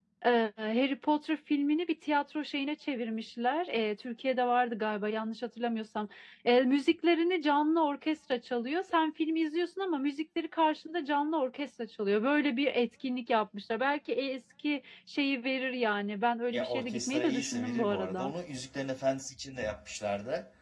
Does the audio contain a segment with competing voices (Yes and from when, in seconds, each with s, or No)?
Yes, from 16.5 s